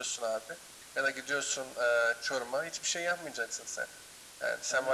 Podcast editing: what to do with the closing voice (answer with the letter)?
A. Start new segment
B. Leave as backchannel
B